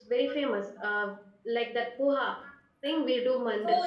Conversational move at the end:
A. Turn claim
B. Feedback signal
A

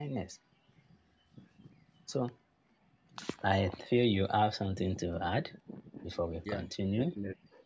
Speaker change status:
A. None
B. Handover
B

